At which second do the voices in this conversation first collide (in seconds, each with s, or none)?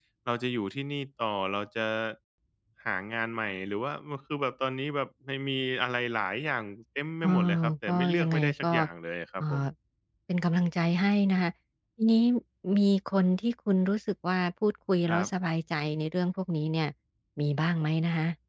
7.2 s